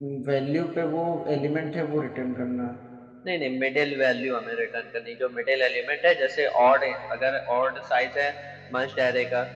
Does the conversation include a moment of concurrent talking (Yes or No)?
No